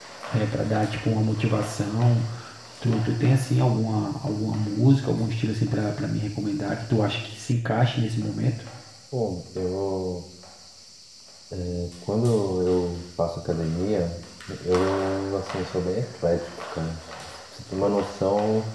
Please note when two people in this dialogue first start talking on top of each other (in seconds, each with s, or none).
none